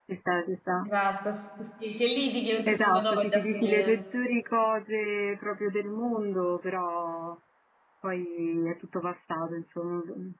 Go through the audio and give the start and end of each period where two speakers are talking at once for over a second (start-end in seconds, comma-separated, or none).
2.7-4.0